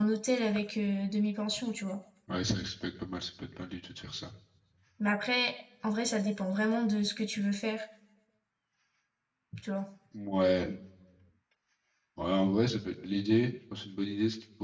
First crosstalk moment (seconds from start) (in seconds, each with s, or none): none